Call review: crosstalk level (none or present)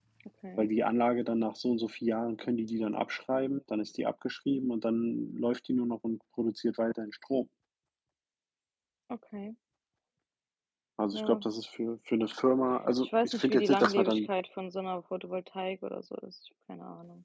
present